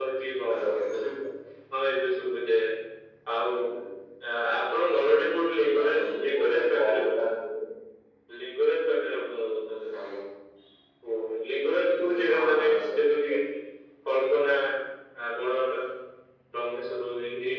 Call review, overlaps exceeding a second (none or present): present